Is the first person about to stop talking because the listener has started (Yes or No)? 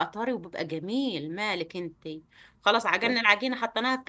No